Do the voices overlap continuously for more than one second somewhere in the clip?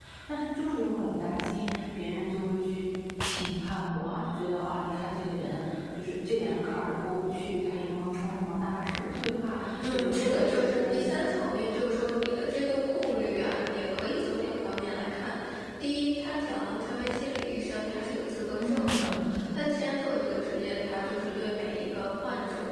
Yes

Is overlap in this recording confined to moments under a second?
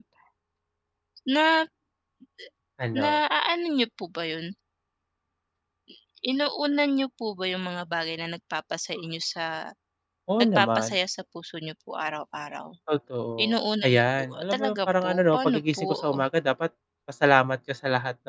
No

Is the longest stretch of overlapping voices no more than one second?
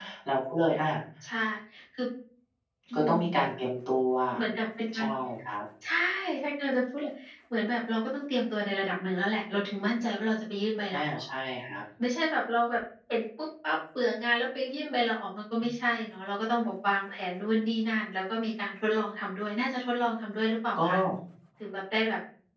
Yes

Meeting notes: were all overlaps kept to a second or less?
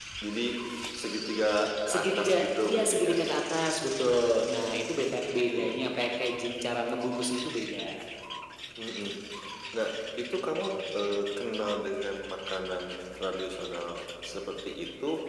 No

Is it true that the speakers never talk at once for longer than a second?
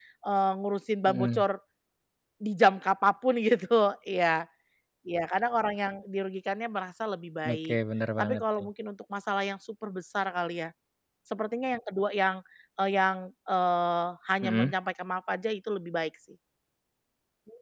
Yes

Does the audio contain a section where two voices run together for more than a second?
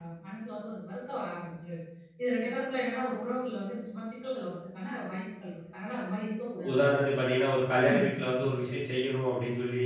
No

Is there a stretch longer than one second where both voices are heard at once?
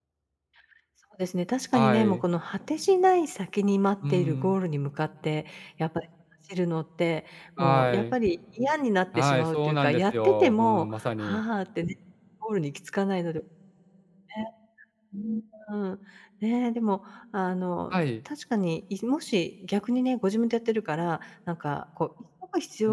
Yes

